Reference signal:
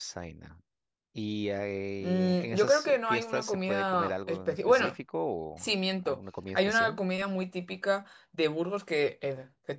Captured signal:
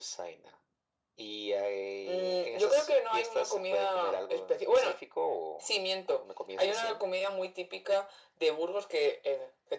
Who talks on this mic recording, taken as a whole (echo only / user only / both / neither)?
echo only